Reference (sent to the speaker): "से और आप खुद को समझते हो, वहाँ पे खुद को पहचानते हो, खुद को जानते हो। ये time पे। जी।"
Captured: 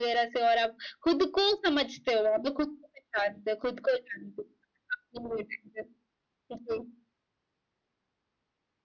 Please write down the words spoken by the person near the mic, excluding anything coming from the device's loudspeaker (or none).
none